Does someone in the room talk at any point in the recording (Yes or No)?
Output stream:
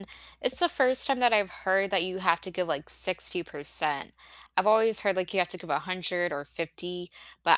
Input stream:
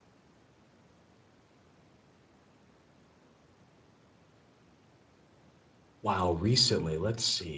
Yes